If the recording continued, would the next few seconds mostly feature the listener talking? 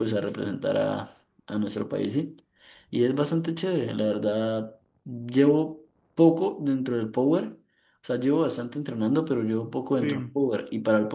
No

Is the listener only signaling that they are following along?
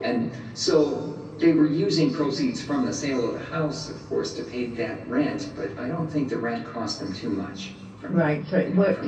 No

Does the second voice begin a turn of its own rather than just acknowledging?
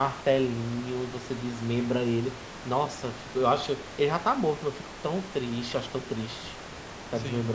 Yes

